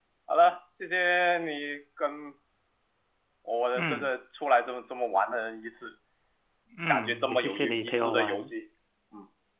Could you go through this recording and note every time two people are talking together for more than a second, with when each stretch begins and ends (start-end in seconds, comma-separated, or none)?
6.9-8.5